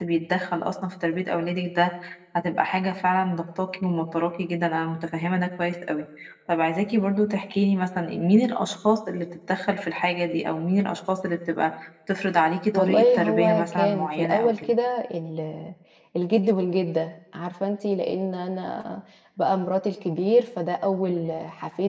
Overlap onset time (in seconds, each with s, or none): 12.7 s